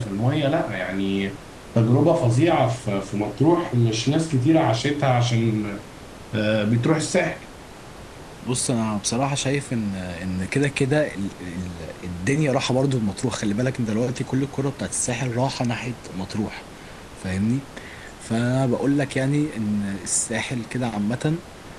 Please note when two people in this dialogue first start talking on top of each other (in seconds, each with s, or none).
none